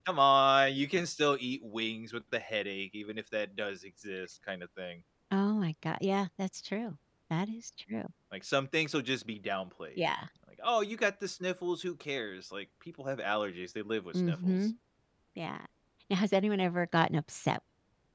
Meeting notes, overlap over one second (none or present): none